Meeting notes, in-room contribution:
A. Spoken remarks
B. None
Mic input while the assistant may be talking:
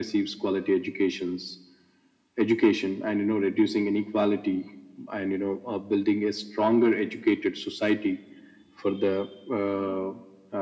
B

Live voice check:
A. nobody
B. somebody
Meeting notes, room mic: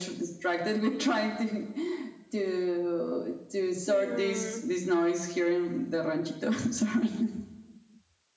B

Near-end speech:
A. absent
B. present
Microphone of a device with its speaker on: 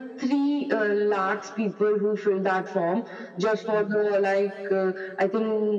A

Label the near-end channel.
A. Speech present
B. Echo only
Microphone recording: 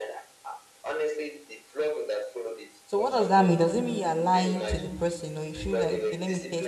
A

